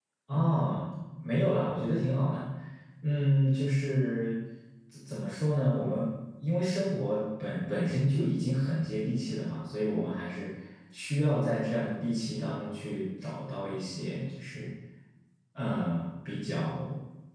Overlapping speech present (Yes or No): No